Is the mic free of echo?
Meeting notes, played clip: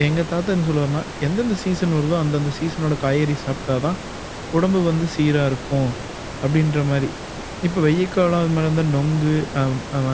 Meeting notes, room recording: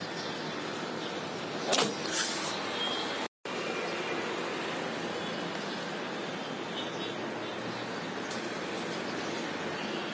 Yes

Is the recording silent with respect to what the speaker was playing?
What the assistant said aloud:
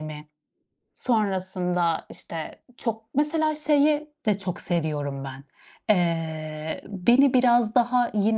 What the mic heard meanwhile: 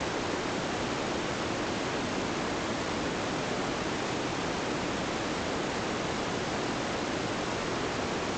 Yes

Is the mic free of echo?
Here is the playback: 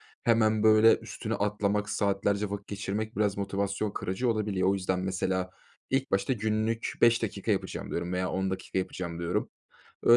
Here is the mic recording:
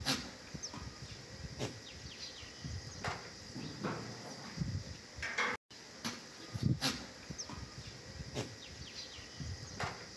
Yes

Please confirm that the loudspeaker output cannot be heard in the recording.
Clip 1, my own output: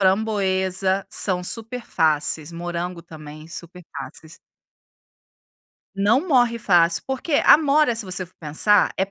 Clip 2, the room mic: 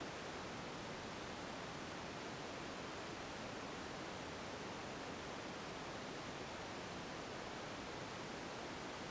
Yes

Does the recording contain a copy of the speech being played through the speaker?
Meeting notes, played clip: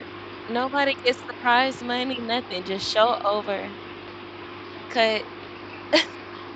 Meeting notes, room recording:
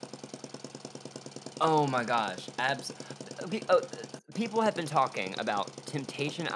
No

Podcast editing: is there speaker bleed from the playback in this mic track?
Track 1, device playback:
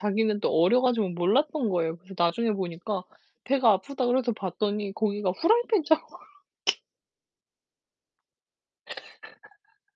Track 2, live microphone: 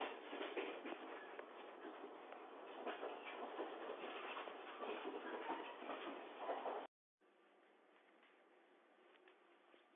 No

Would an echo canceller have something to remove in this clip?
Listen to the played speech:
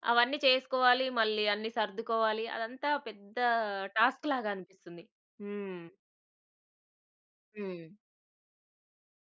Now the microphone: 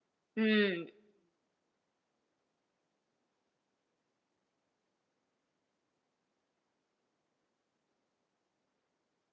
No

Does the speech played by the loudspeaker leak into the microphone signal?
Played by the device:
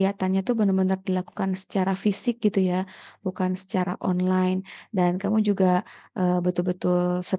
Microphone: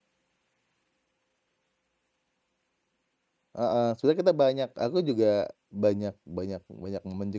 No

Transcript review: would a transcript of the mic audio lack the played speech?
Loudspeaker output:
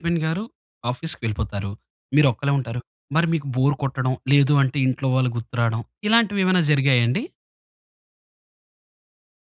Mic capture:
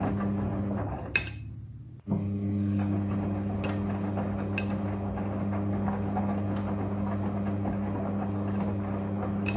Yes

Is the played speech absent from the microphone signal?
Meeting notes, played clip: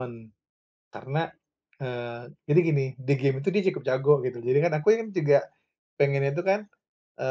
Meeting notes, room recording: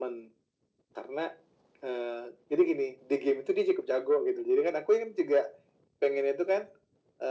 No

